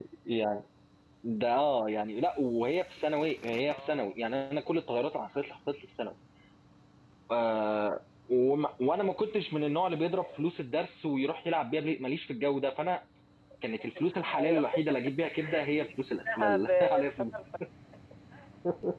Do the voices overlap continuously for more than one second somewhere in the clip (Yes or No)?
Yes